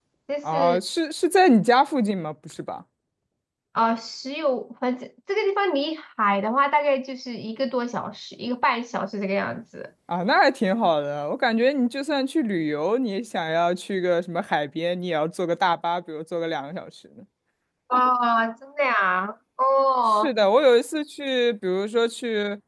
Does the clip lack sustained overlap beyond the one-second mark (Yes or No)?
Yes